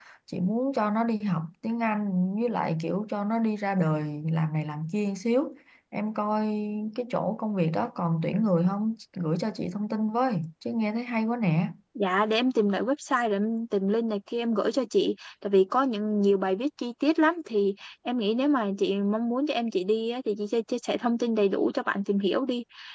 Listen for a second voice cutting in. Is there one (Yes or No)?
No